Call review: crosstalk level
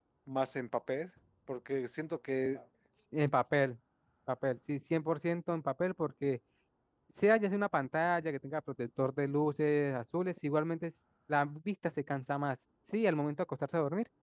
none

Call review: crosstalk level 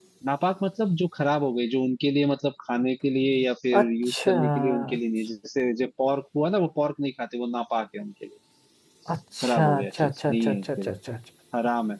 present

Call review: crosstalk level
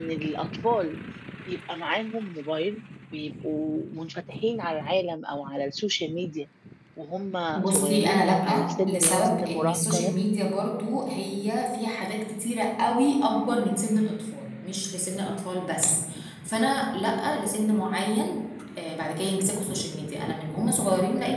present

